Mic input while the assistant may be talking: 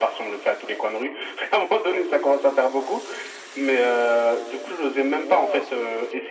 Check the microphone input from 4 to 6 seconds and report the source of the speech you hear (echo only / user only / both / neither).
both